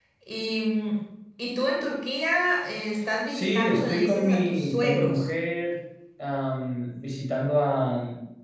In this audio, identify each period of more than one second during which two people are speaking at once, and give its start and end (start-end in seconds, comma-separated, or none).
3.3-5.3